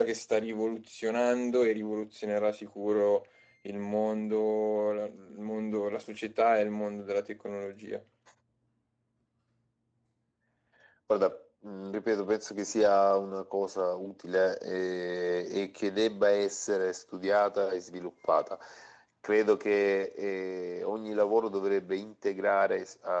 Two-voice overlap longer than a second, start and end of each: none

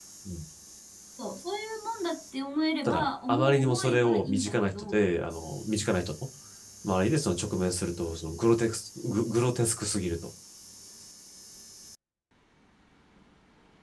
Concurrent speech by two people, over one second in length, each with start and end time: 2.8-5.0

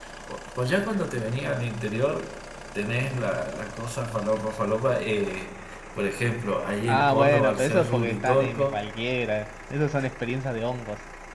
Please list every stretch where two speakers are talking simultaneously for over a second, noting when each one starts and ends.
6.9-8.8

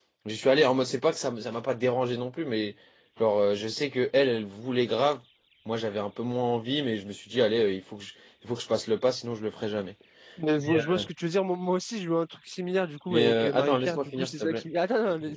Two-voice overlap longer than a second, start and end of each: 13.1-14.6

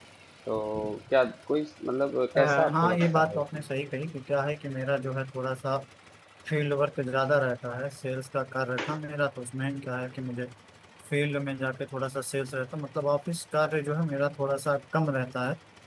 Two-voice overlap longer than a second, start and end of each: 2.4-3.6

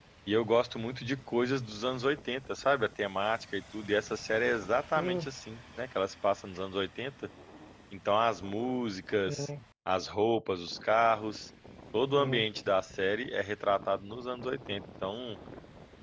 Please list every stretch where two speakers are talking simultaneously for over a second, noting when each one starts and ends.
none

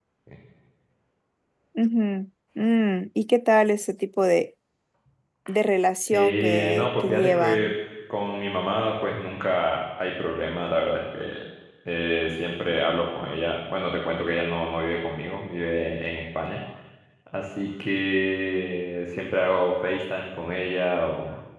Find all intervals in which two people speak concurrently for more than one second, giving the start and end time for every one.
6.1-7.7

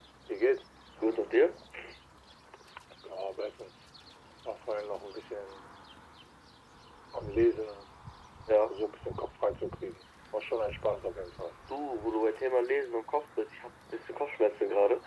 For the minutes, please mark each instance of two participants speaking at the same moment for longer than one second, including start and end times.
none

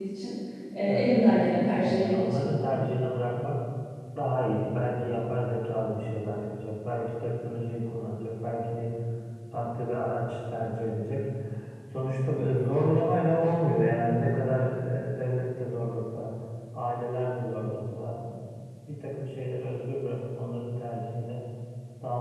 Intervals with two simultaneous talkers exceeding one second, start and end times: 0.9-2.5

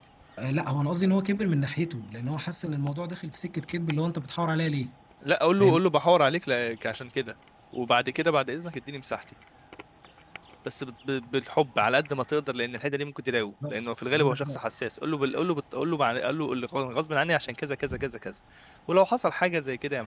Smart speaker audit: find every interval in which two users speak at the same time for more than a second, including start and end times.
none

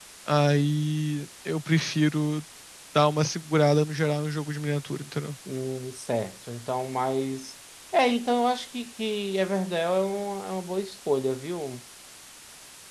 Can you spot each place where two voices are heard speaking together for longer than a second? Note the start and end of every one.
none

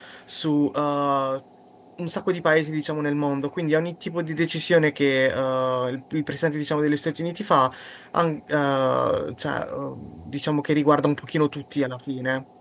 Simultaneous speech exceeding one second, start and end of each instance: none

